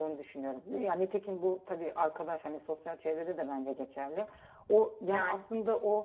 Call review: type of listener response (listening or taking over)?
listening